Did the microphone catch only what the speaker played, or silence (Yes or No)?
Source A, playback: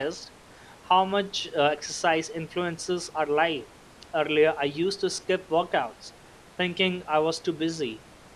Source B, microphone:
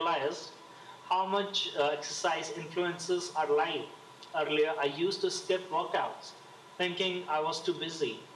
Yes